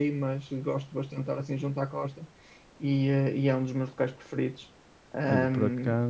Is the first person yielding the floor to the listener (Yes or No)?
Yes